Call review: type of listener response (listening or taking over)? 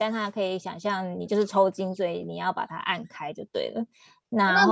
taking over